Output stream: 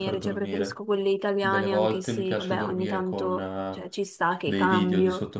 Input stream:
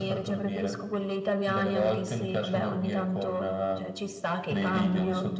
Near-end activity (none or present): none